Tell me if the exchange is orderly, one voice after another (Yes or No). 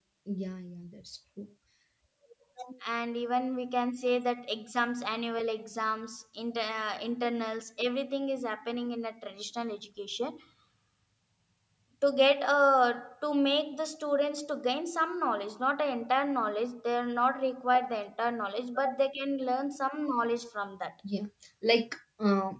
Yes